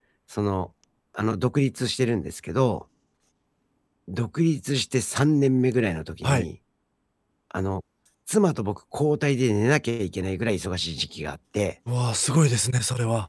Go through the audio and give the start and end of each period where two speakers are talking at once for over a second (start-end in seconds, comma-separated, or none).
none